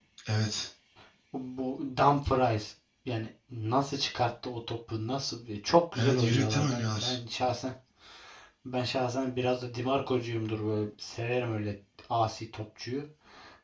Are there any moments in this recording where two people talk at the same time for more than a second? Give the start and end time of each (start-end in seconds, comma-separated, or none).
5.9-7.2